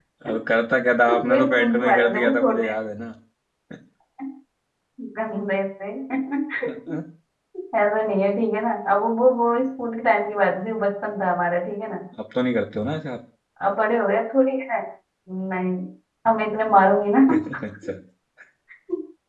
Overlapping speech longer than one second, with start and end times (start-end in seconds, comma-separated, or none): 1.1-2.7